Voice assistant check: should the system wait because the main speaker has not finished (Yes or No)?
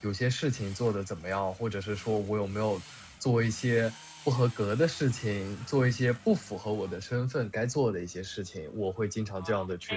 No